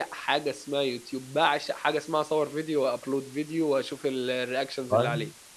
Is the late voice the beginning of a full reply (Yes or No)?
Yes